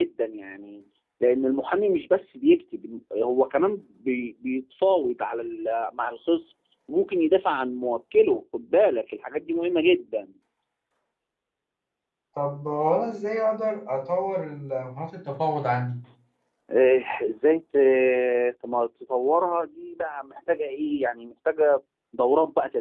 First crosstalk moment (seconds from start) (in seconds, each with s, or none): none